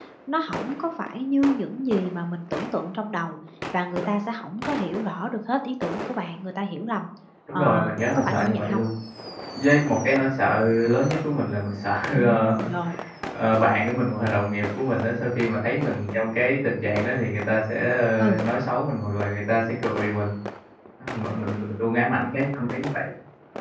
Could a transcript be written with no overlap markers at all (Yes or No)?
No